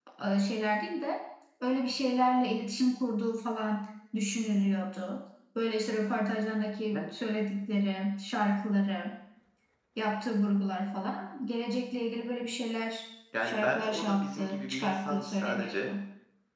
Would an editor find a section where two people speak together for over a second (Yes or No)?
Yes